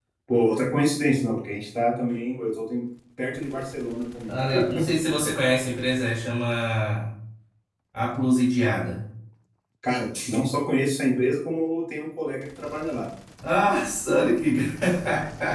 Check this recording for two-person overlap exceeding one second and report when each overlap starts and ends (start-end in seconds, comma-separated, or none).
none